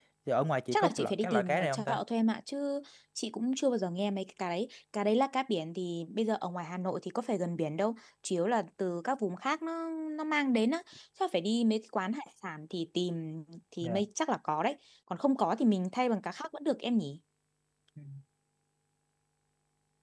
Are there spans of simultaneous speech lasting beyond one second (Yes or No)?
Yes